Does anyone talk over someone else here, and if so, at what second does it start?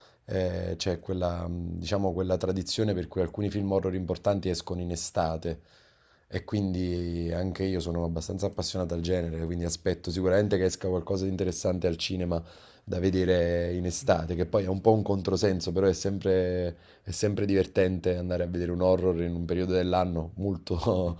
none

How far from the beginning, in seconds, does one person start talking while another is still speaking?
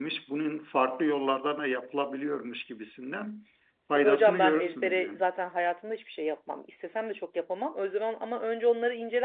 4 s

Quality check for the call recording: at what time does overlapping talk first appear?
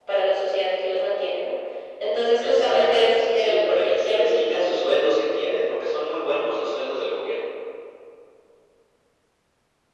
2 s

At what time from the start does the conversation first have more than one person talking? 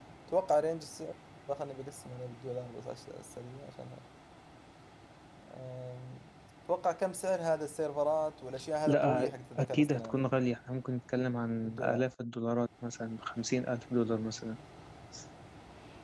9 s

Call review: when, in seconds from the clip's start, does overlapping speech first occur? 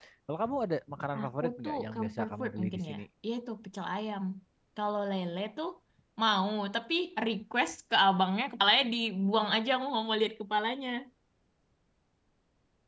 1 s

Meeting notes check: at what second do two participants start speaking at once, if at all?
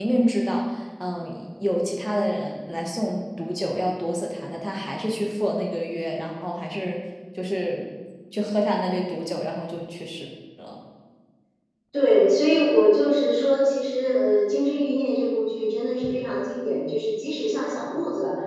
none

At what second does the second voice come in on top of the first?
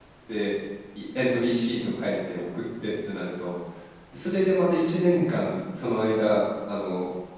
none

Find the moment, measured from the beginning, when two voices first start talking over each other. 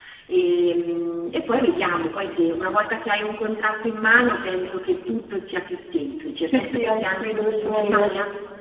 6 s

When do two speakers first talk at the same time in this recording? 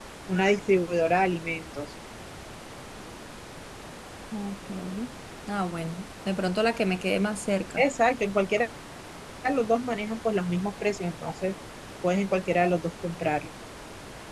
none

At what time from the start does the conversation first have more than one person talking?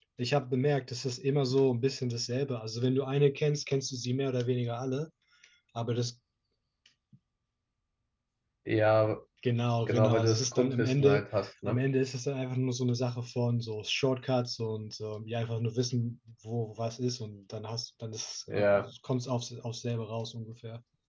10 s

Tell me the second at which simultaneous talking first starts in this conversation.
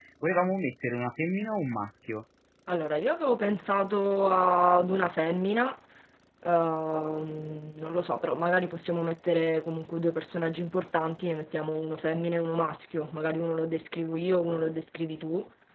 none

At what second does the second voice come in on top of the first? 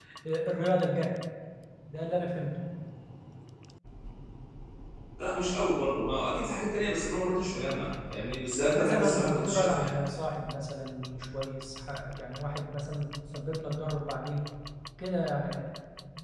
9 s

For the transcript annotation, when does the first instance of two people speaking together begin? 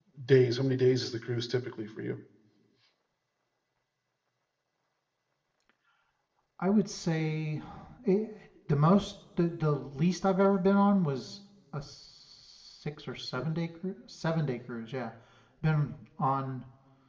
none

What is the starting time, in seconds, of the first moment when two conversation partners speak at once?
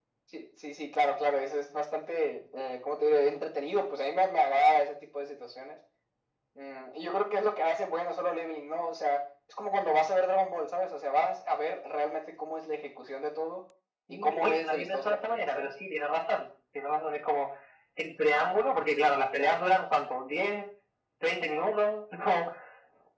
14 s

